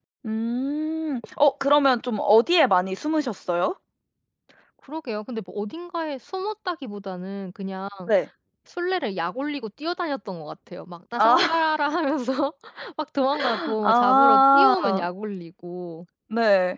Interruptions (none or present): present